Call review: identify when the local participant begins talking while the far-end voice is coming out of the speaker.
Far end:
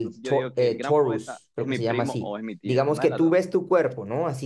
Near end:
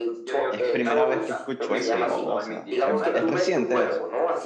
0.5 s

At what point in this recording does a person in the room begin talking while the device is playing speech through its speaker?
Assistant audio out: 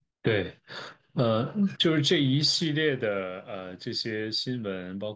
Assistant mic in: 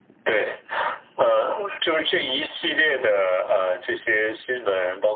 none

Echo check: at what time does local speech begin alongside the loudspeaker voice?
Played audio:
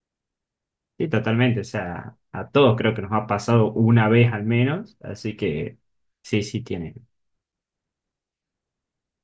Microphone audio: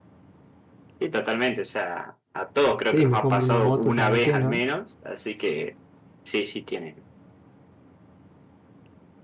2.8 s

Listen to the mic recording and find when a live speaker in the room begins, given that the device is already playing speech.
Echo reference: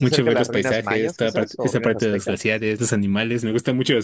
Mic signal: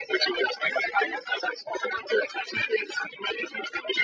none

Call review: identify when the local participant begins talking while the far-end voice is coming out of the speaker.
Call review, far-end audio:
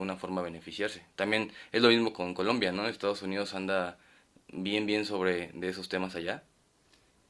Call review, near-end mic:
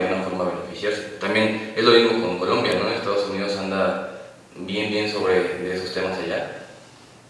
none

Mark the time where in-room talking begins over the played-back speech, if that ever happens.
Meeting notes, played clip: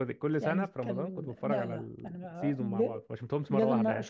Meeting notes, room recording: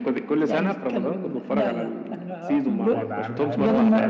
2.9 s

